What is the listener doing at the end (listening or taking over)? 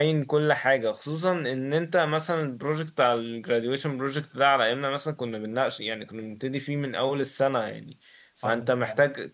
listening